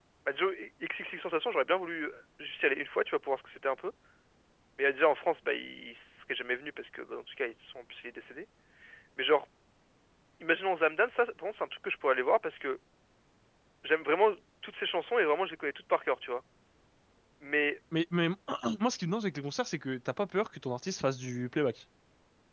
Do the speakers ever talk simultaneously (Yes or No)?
No